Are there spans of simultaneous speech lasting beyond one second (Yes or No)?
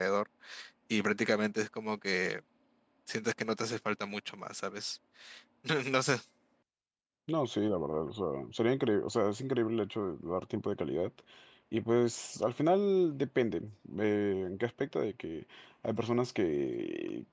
No